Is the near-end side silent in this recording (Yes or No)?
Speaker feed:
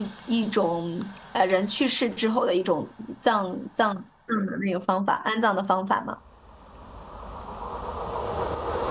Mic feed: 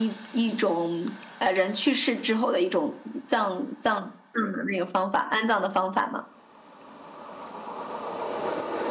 Yes